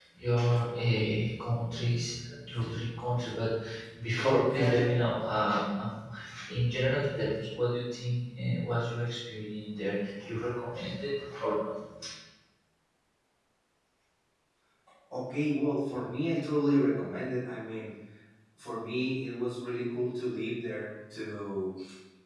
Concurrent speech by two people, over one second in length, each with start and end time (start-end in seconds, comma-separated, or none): none